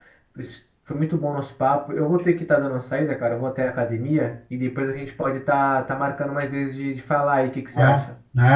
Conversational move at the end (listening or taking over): taking over